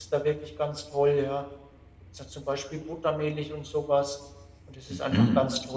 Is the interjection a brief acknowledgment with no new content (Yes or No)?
Yes